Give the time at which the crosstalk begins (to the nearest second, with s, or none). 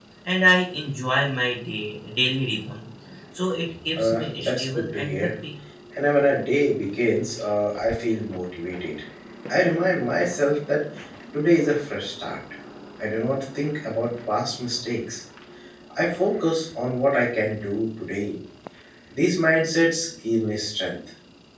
4 s